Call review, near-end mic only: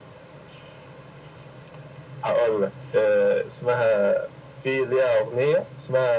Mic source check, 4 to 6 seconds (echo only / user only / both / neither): echo only